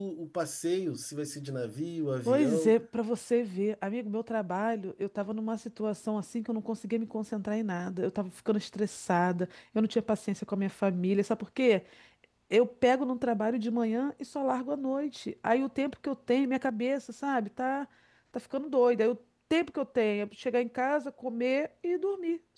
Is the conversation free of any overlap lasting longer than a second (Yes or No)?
Yes